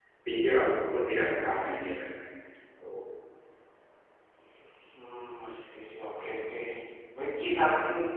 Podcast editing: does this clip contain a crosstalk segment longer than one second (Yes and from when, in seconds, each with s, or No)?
No